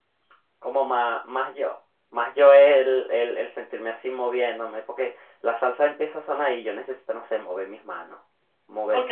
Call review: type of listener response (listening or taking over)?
taking over